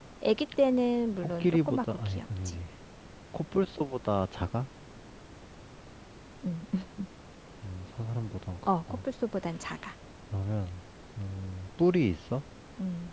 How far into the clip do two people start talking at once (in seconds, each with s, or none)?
1.2 s